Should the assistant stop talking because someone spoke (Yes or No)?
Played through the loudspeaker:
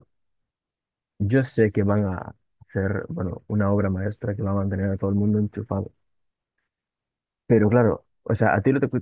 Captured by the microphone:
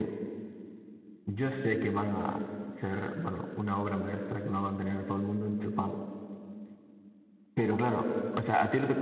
No